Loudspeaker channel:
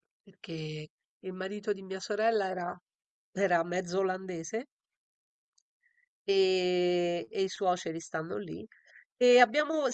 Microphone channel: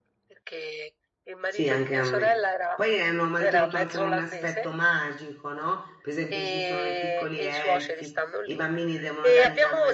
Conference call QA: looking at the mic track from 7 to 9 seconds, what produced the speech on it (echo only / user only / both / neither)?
both